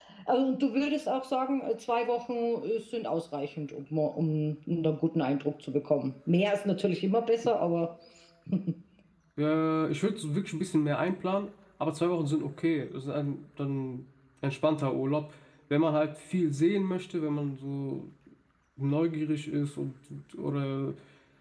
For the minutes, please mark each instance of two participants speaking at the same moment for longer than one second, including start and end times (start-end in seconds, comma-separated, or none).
none